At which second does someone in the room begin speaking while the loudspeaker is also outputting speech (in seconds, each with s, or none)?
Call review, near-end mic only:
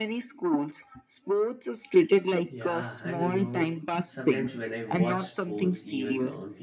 2.5 s